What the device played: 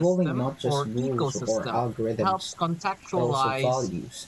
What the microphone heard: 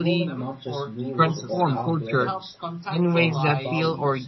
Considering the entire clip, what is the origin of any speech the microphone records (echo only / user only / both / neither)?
both